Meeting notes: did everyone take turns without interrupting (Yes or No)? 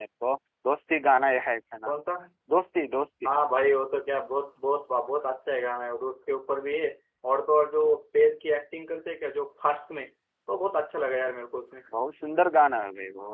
Yes